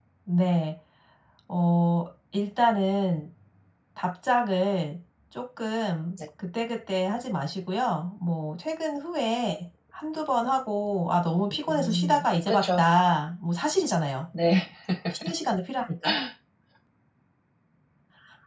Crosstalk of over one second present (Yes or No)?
Yes